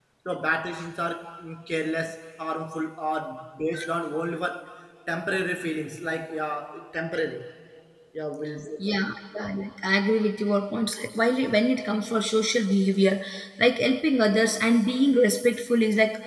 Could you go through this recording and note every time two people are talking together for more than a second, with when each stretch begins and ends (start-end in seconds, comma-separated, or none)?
none